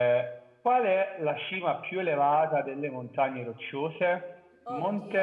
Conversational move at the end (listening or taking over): listening